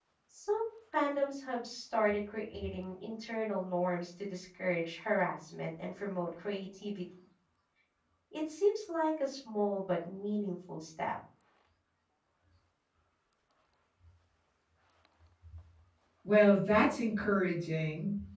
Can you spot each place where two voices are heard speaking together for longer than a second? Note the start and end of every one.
none

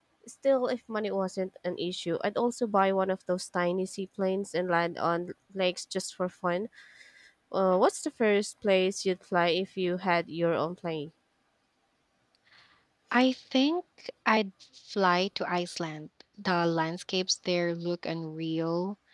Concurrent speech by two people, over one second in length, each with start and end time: none

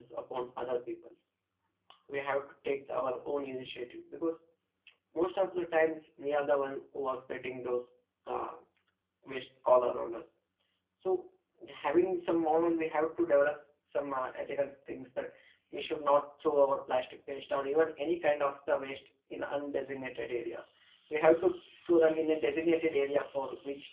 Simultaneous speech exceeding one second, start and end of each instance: none

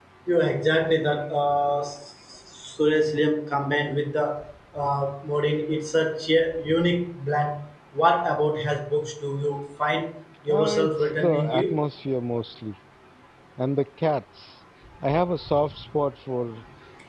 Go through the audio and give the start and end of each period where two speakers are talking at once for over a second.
10.5-11.7

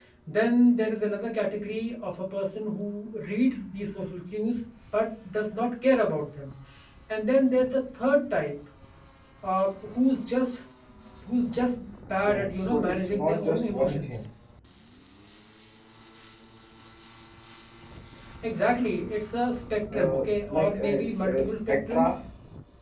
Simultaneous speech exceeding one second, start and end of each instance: 12.2-14.2, 19.9-22.1

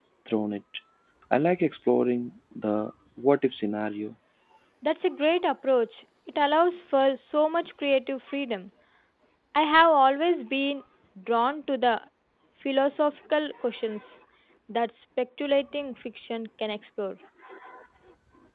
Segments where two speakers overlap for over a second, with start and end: none

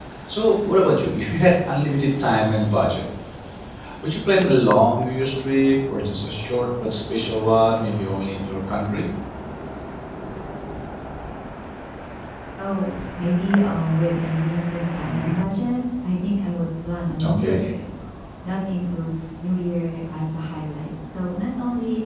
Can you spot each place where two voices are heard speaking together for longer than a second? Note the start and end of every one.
none

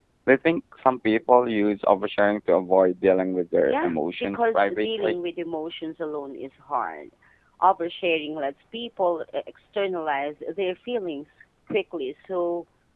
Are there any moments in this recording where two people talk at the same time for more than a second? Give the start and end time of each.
3.7-5.2

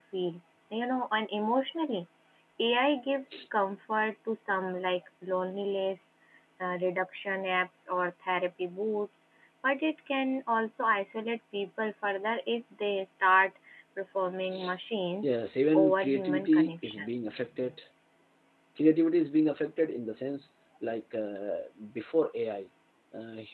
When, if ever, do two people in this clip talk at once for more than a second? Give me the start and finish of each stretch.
15.7-17.1

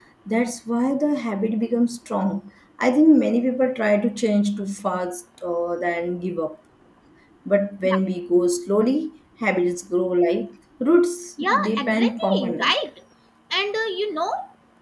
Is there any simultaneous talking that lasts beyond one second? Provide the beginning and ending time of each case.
11.4-12.7

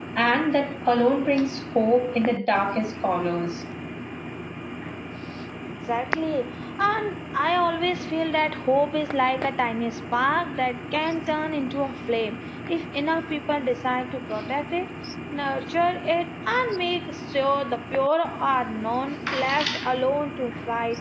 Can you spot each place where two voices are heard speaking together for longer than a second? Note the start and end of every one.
none

